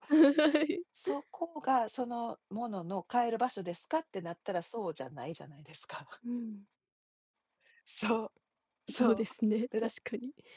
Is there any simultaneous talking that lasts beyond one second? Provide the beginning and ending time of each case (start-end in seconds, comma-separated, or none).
none